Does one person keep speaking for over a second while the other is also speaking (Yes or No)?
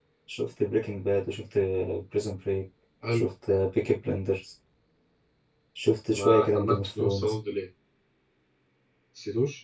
Yes